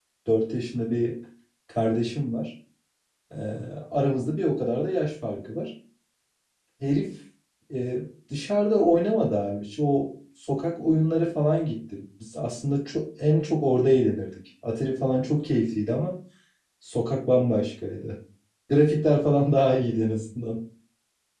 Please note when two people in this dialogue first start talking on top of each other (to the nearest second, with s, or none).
none